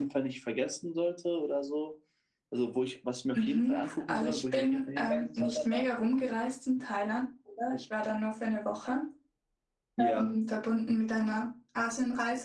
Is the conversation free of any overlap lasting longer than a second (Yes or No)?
No